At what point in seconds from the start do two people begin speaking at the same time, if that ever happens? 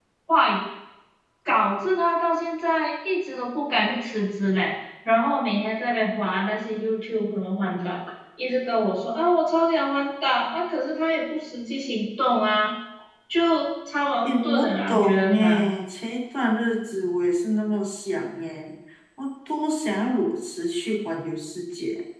14.2 s

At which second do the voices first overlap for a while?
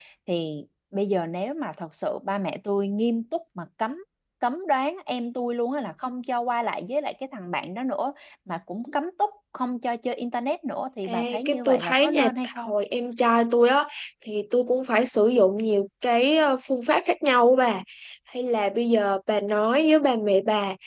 11.0 s

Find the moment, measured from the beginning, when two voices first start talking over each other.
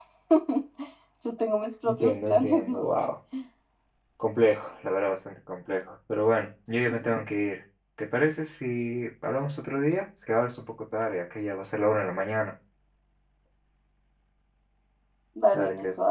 1.8 s

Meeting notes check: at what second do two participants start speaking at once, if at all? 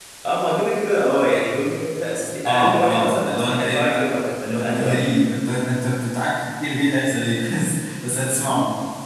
2.5 s

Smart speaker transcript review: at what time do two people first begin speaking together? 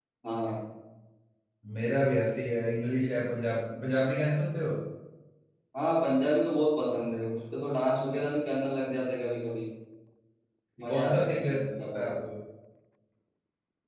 10.9 s

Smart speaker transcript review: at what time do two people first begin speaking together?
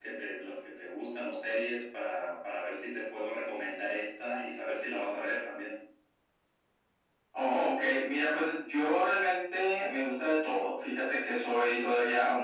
none

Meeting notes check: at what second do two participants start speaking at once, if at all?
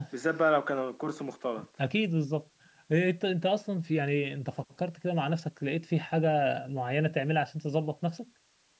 none

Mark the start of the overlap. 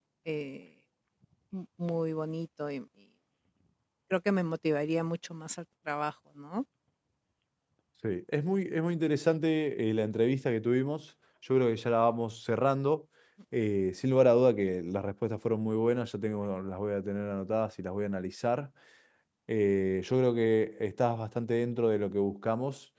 none

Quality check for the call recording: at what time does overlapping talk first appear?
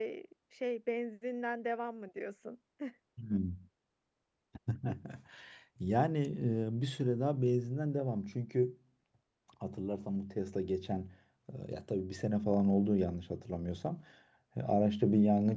none

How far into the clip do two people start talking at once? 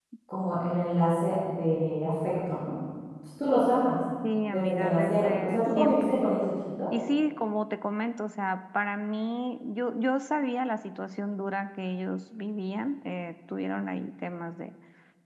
4.5 s

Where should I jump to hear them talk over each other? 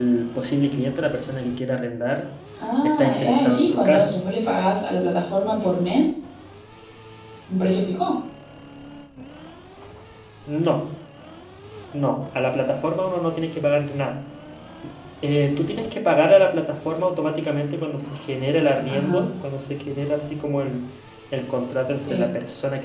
2.8 s

